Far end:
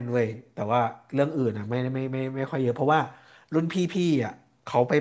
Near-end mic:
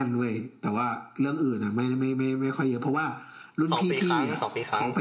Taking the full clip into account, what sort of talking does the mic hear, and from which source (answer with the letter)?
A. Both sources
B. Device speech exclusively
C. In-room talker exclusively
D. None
A